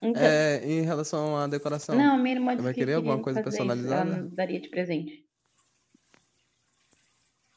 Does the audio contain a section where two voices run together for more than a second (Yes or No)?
Yes